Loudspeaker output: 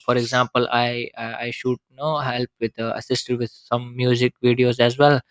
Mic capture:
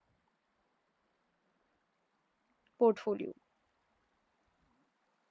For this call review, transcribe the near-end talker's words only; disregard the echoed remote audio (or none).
portfolio